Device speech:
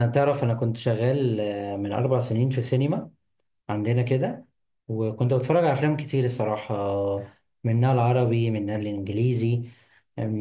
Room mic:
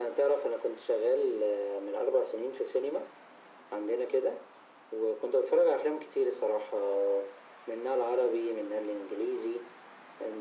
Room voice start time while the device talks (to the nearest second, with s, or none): none